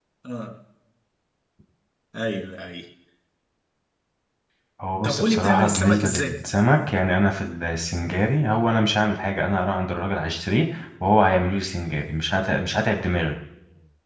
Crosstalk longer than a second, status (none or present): present